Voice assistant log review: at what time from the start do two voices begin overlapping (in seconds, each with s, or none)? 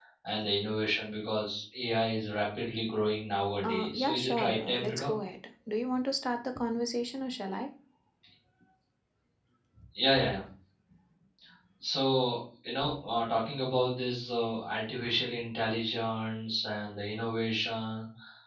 3.6 s